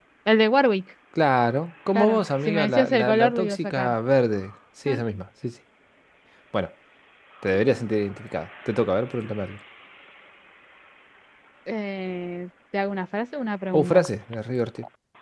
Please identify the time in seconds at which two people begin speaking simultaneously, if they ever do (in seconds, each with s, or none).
2.0 s